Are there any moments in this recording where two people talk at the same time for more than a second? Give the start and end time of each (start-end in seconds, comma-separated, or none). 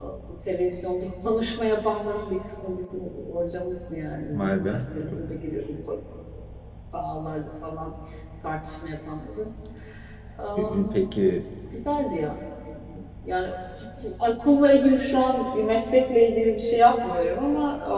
none